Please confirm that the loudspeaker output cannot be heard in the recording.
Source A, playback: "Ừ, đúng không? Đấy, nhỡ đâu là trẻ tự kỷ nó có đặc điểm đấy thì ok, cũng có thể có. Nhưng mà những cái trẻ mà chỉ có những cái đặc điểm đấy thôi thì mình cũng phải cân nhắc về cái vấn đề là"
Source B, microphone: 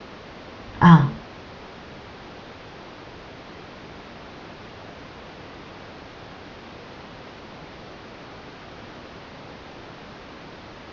Yes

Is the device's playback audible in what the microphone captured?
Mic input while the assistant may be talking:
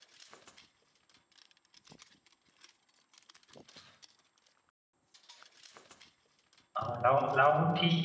No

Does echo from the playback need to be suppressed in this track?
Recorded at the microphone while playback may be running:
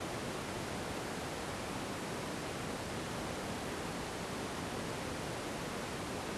No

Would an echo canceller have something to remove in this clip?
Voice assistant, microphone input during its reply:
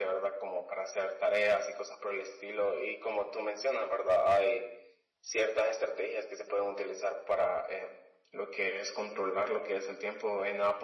Yes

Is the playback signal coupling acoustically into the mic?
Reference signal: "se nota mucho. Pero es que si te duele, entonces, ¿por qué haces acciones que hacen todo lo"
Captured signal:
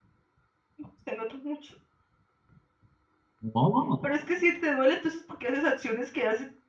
Yes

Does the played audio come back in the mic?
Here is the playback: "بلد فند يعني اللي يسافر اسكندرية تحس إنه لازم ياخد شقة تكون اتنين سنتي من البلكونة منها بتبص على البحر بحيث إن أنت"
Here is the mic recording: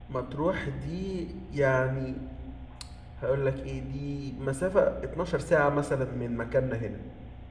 No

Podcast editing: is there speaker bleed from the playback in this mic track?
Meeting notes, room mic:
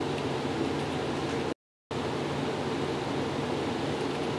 No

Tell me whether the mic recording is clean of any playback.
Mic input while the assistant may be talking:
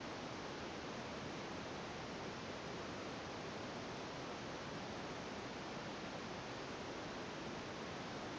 Yes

